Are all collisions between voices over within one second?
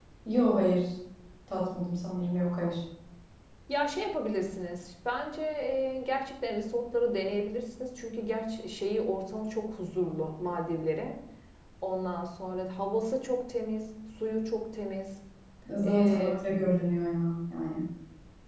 Yes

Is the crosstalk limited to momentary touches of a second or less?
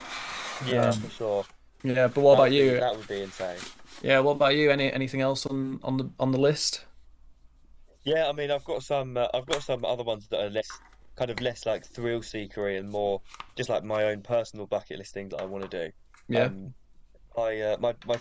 Yes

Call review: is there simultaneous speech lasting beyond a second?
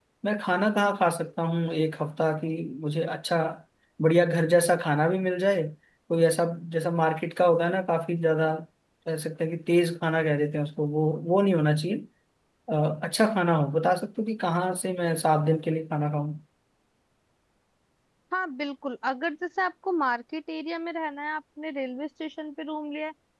No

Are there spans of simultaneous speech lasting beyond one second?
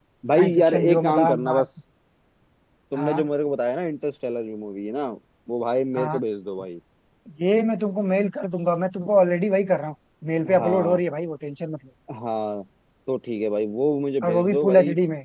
Yes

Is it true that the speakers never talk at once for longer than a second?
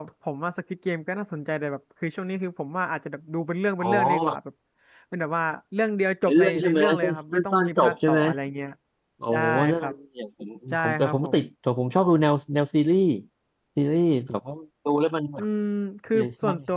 No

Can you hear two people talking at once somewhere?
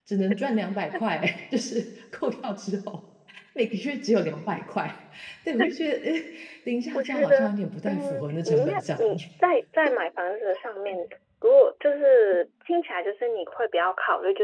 Yes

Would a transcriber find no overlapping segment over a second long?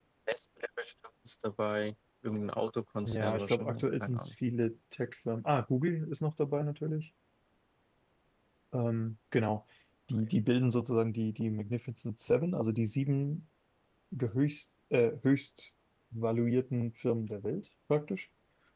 No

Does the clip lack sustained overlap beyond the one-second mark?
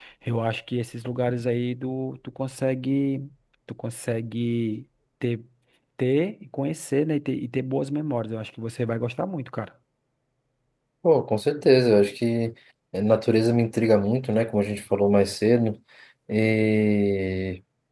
Yes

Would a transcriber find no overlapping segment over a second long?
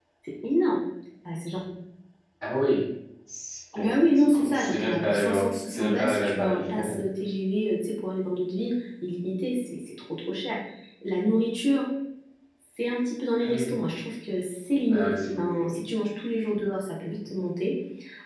No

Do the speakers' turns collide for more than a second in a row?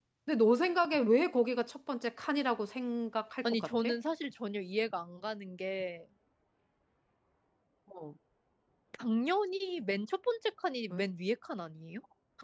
No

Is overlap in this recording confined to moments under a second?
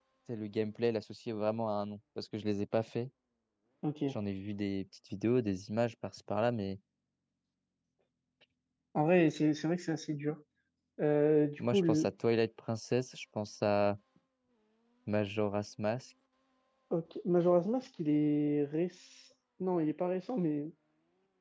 Yes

